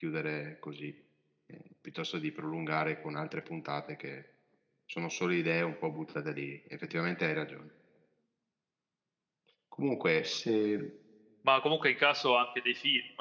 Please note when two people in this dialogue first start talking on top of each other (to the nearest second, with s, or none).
none